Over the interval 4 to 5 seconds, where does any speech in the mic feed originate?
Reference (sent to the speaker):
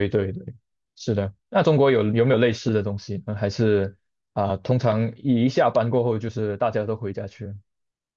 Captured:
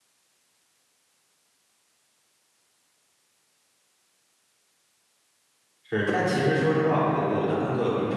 neither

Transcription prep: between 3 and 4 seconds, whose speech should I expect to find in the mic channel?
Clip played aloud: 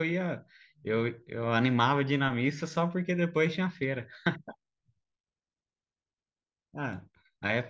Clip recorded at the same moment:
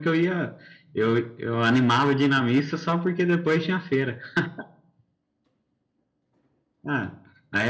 echo only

